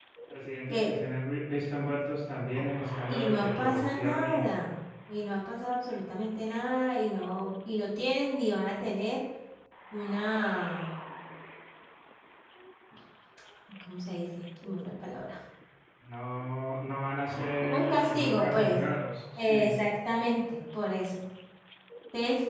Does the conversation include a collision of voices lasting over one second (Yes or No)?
Yes